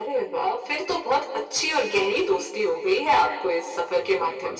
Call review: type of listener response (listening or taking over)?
taking over